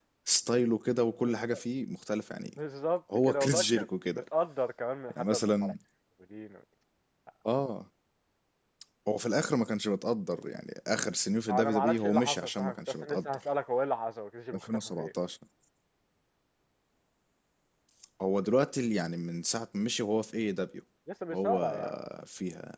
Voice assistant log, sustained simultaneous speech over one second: present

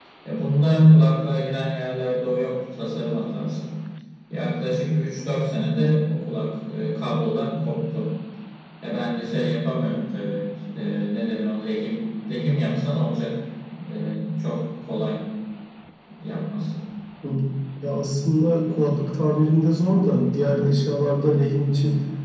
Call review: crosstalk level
none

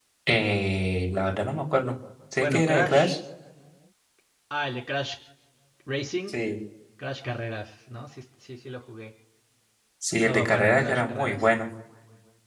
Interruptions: present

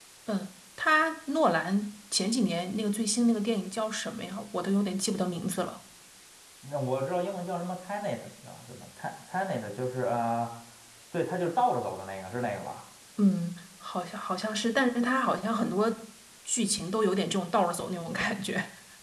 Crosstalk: none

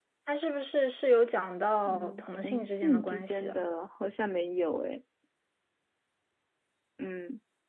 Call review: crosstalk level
present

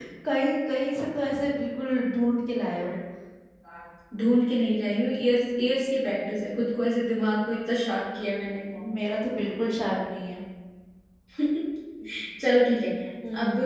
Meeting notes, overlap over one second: none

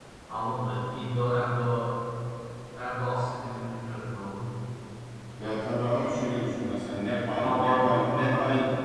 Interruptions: present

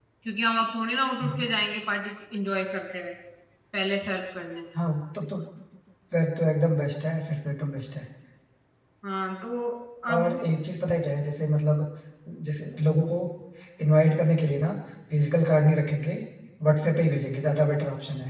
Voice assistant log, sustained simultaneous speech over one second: none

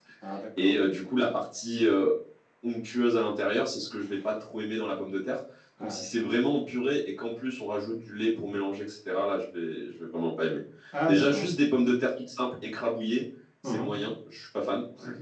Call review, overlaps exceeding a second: none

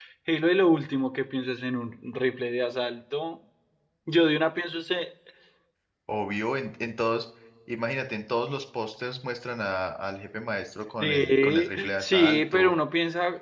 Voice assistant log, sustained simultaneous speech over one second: present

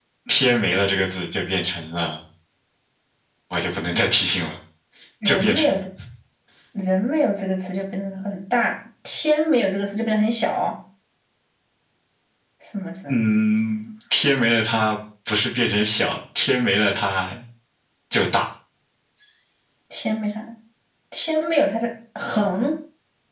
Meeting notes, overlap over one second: none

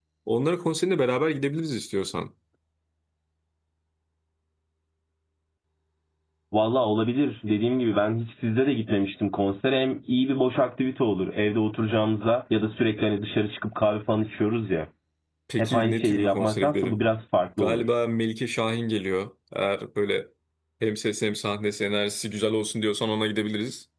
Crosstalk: present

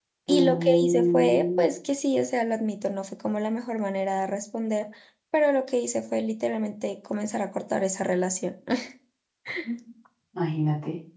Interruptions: present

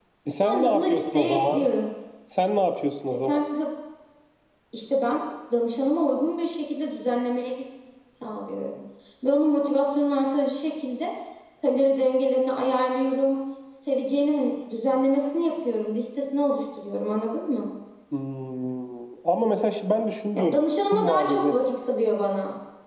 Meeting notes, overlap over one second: present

